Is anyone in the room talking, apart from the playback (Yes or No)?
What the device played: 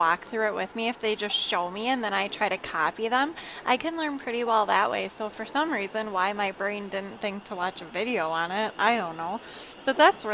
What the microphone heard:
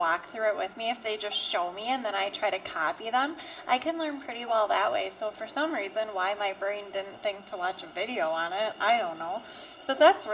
No